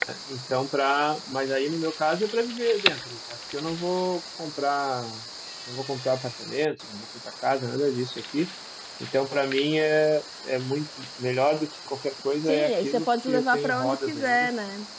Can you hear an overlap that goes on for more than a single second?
Yes, from 12.5 s

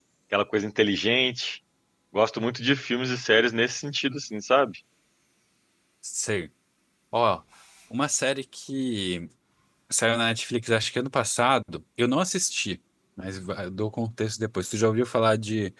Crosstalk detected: No

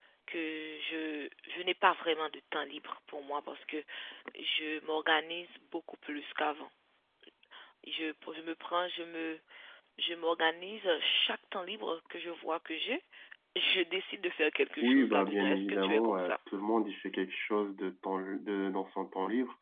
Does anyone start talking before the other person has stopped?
Yes, from 14.8 s

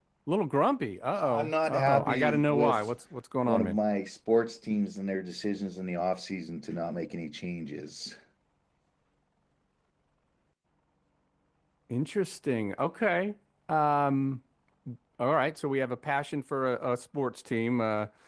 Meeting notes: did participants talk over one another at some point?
Yes, from 1.2 s

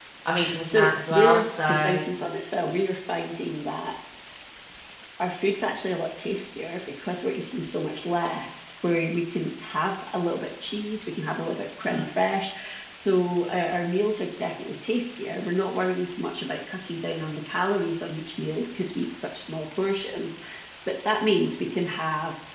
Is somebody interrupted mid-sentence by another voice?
Yes, from 0.6 s

